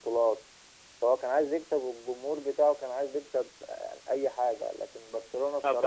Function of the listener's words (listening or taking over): taking over